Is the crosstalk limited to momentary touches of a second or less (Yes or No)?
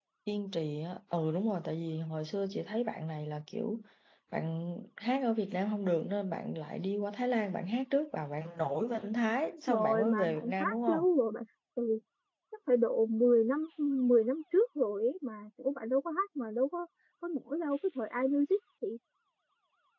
No